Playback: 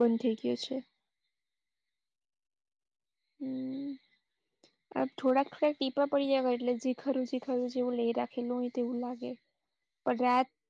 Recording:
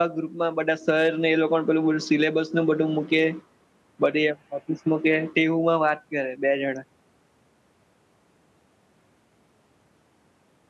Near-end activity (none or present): present